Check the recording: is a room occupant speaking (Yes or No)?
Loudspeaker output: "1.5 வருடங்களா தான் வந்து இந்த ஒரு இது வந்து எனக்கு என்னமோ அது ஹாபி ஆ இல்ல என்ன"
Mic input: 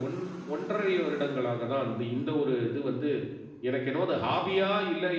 No